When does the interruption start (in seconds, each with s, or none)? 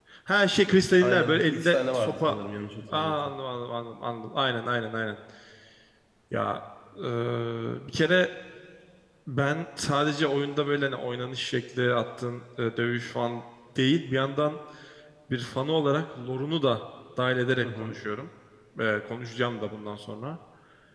1.0 s